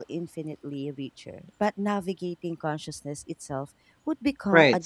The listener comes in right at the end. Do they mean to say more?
Yes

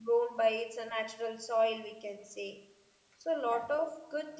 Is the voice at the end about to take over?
No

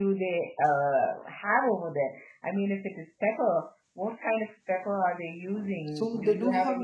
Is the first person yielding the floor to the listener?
Yes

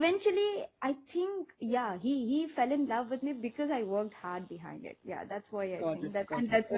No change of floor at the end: No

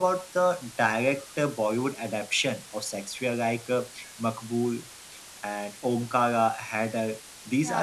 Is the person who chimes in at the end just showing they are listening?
Yes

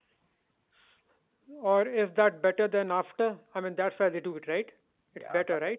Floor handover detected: Yes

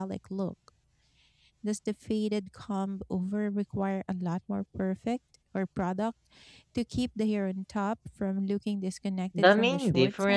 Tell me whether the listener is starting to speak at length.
Yes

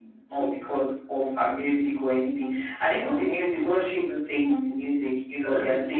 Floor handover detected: No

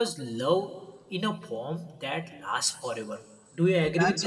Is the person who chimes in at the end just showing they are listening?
No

